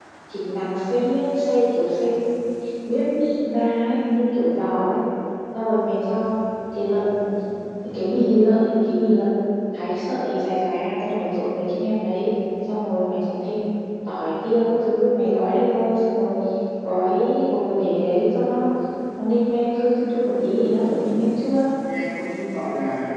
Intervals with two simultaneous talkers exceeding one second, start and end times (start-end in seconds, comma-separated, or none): 20.4-21.6